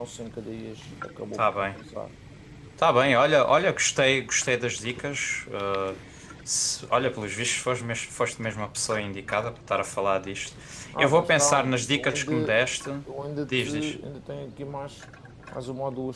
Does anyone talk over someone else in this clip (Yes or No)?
Yes